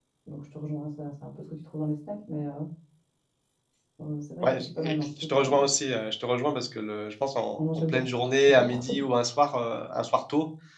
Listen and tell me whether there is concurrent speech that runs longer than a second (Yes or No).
Yes